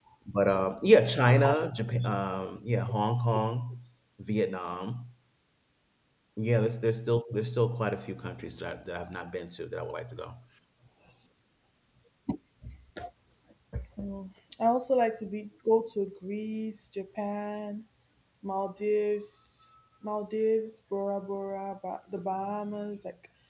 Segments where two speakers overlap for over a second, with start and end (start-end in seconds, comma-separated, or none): none